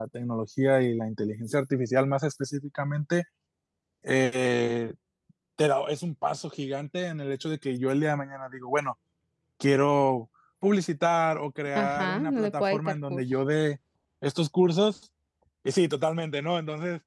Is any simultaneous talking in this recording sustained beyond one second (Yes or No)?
Yes